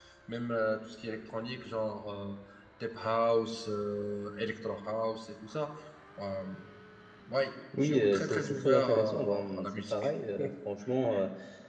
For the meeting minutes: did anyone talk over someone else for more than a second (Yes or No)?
Yes